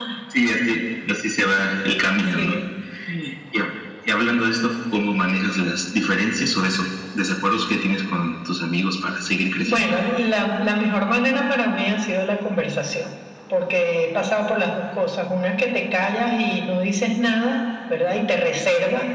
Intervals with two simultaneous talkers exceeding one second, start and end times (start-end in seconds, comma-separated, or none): none